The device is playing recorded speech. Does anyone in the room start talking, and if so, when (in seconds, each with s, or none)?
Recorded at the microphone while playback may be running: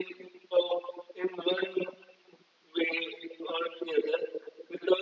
none